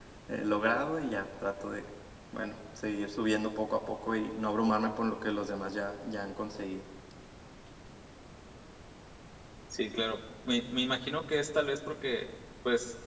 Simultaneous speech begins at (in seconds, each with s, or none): none